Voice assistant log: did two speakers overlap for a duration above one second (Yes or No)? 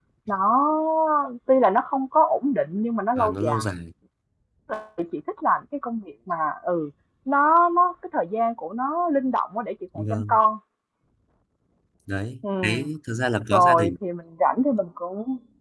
No